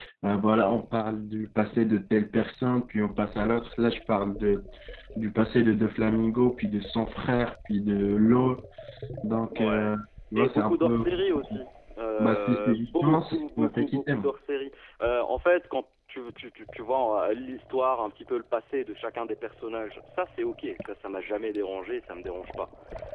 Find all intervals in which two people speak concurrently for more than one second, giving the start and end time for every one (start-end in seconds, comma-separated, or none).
10.4-11.6, 12.2-14.3